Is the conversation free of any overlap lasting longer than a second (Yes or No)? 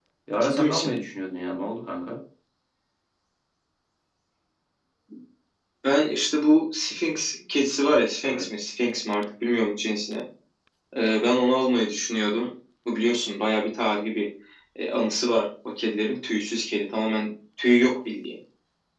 Yes